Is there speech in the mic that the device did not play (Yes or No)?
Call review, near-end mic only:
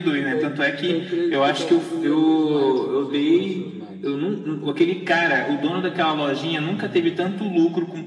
Yes